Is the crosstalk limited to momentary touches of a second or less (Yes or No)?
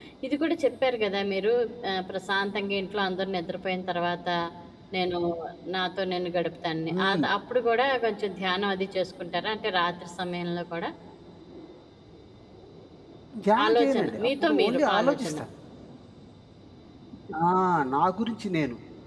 No